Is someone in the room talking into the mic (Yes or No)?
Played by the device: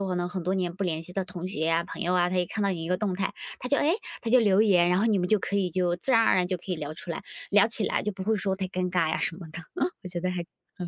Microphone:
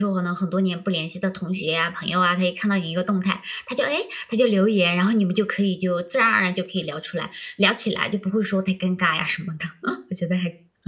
No